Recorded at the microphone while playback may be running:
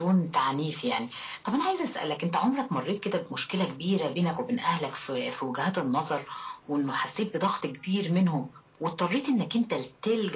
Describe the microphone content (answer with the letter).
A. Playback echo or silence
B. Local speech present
A